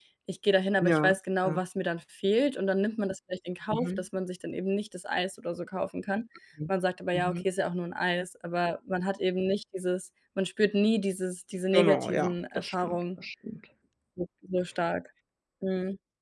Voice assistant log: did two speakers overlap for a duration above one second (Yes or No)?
Yes